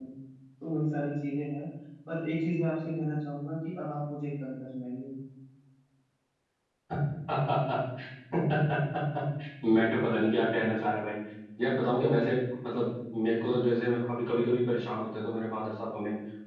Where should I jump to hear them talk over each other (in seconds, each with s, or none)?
none